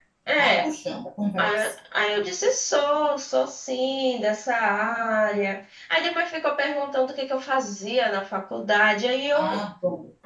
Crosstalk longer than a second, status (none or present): none